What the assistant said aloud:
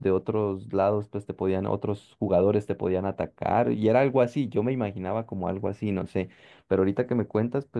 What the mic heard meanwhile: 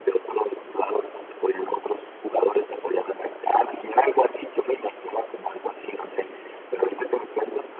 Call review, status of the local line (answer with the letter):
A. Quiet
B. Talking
A